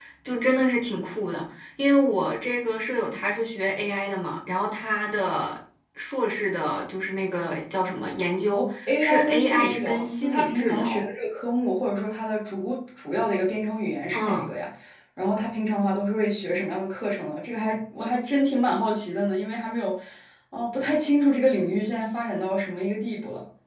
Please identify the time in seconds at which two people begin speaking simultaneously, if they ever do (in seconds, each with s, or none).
8.5 s